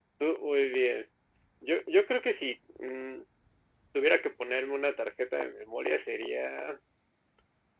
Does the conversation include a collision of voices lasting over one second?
No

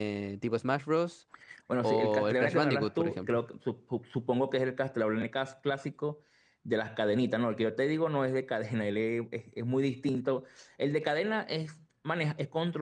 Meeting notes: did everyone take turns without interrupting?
No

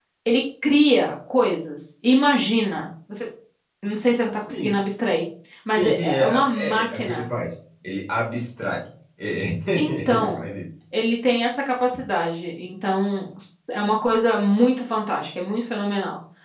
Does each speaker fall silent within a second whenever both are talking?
No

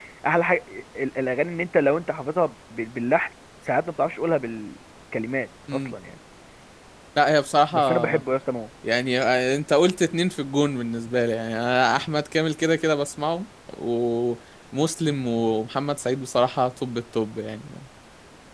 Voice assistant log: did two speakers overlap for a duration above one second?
No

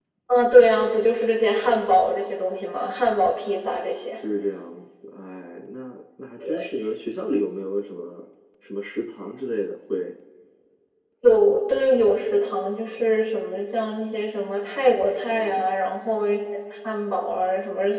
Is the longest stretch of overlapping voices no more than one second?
Yes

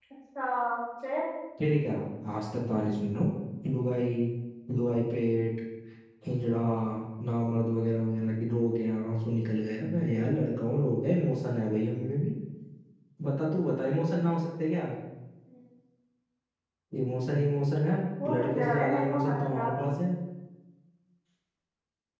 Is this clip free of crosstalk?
No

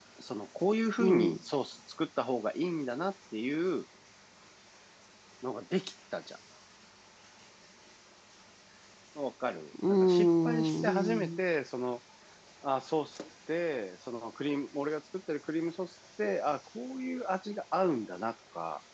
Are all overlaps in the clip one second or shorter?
No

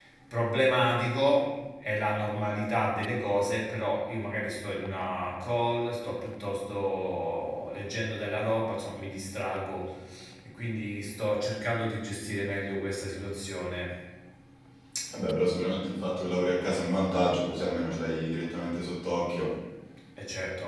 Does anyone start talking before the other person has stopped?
No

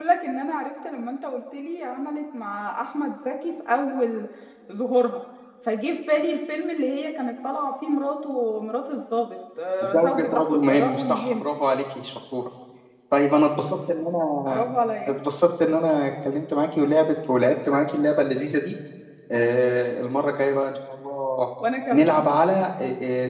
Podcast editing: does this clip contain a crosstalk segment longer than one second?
Yes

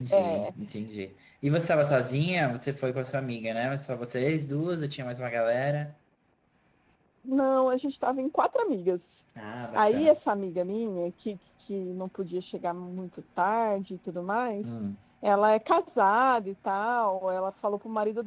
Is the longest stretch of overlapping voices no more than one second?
Yes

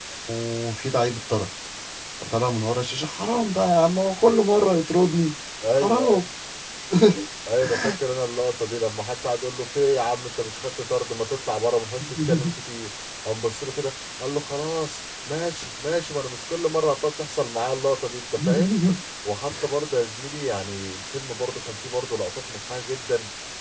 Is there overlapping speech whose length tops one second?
No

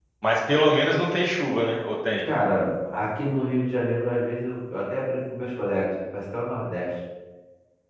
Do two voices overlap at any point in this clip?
No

